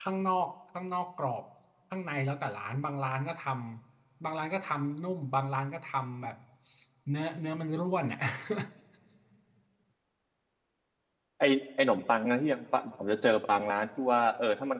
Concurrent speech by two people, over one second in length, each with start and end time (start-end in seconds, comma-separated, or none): none